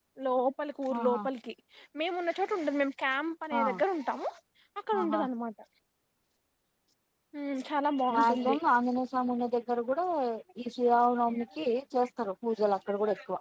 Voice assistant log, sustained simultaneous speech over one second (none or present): none